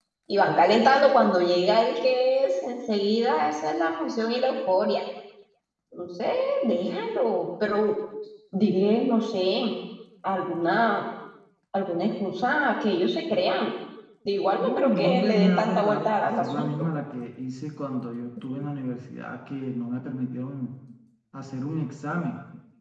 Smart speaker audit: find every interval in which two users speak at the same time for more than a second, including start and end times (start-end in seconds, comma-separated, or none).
14.6-16.9